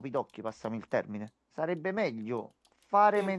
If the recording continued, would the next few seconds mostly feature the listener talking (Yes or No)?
No